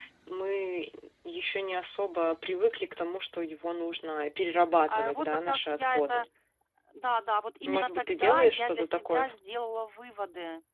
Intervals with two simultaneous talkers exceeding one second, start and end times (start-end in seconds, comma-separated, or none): 4.9-6.2, 7.7-9.3